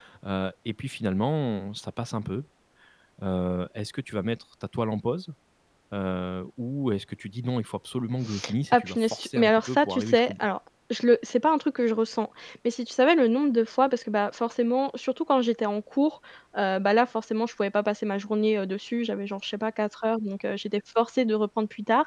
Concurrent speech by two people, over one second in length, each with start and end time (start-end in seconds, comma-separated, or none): 8.7-10.4